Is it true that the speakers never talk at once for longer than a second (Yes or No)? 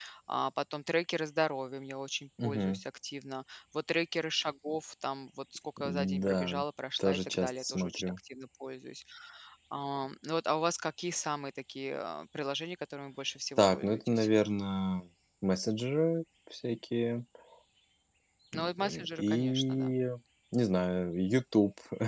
No